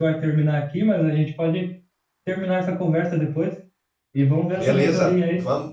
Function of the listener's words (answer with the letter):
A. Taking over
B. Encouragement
A